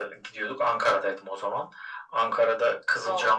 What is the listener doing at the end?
listening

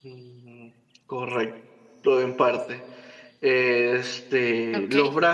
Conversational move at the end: listening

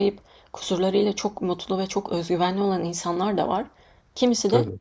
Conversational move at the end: listening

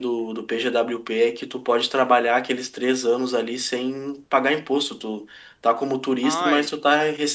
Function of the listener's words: listening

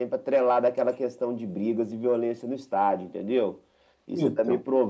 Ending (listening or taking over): listening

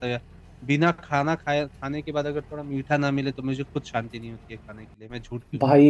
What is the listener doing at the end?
taking over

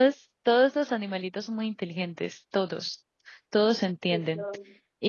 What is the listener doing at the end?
listening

